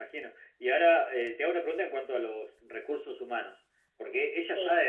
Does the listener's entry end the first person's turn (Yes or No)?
No